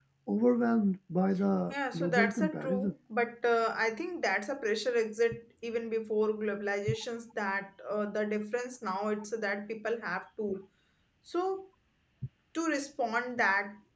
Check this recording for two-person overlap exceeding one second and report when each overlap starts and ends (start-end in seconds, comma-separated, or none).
1.7-2.9